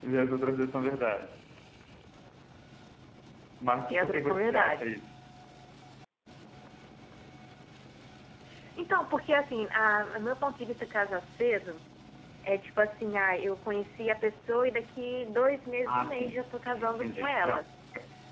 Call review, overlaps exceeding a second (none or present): present